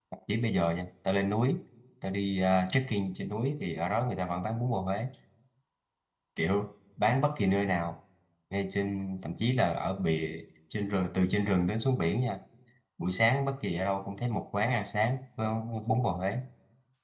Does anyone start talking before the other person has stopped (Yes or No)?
No